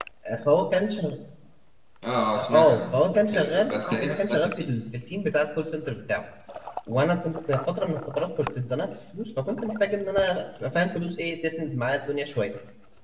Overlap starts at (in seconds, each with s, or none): 2.4 s